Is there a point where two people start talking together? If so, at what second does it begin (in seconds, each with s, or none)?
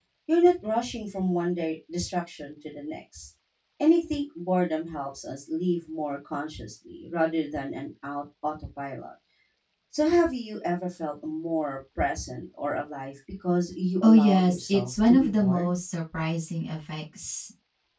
14.0 s